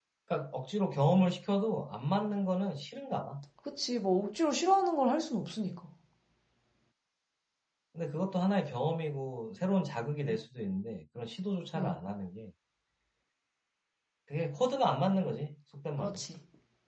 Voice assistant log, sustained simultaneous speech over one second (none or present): none